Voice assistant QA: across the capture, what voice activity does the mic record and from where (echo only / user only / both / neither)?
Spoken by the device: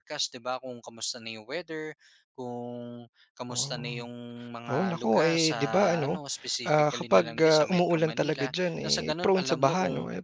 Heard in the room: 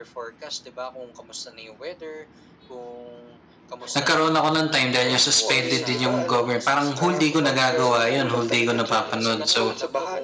both